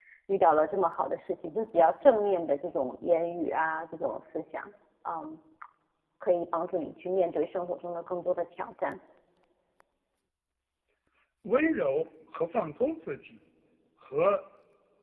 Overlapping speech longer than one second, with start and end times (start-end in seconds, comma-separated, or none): none